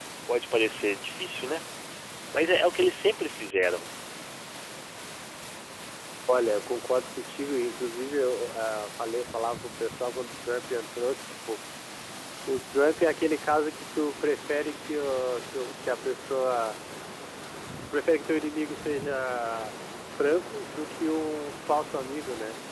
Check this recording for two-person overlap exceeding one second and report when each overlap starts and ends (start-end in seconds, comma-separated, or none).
none